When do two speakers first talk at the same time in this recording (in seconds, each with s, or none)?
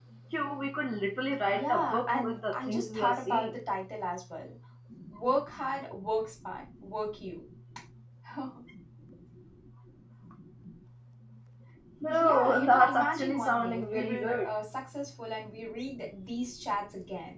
1.5 s